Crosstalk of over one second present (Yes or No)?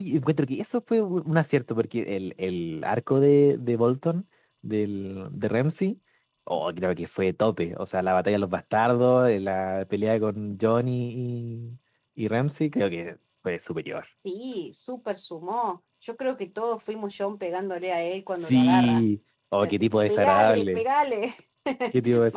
Yes